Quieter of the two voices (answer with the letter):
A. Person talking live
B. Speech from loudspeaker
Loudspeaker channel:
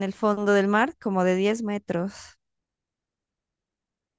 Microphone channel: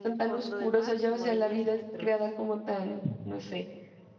B